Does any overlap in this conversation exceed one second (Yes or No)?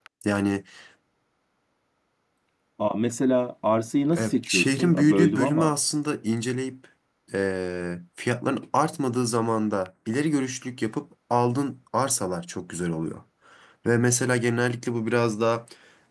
Yes